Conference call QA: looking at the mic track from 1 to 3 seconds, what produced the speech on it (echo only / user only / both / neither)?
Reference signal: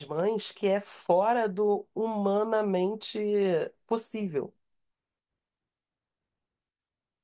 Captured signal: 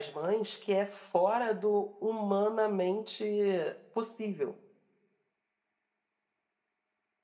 echo only